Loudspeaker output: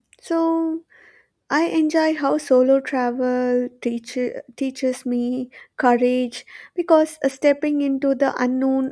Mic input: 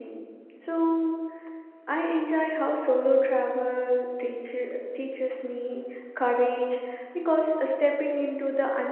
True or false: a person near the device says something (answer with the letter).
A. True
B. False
B